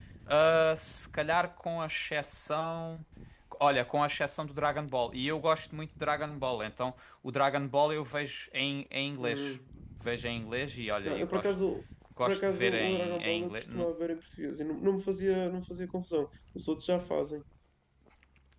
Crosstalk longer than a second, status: present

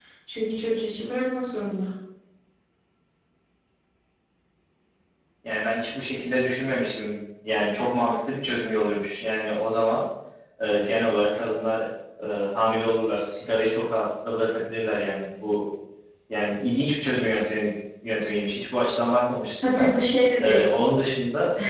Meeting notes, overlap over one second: none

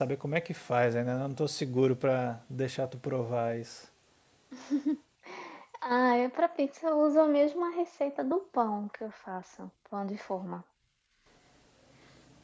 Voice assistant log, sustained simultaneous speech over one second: none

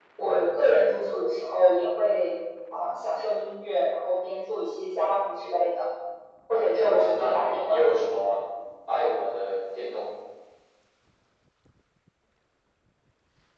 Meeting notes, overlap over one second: present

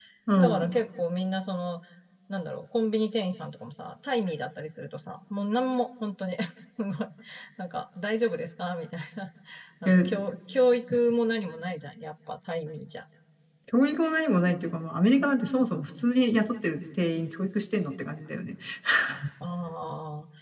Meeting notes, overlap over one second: none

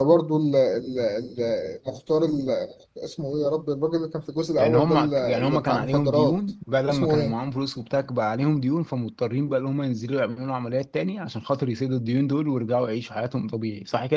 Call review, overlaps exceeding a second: present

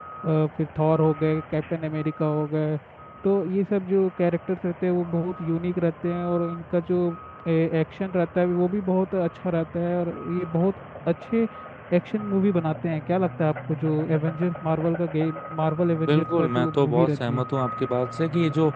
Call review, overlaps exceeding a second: present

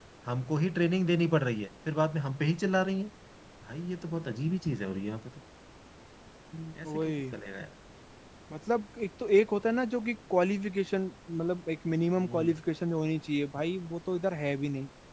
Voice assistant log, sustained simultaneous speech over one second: none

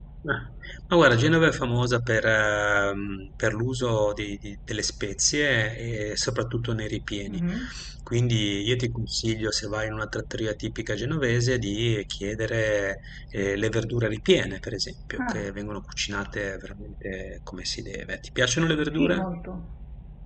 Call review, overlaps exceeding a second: none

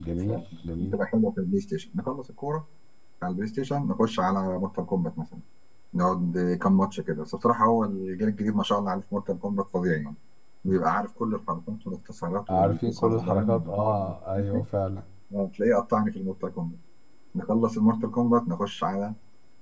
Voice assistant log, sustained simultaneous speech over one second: present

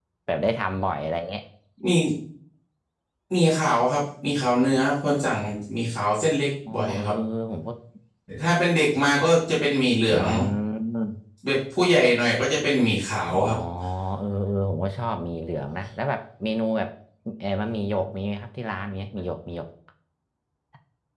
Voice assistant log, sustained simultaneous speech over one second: none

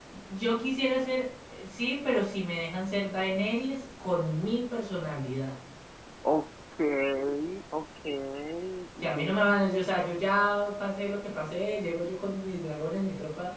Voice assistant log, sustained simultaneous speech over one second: none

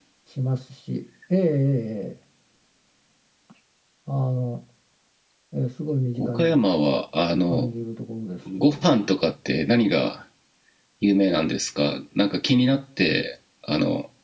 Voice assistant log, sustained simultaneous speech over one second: none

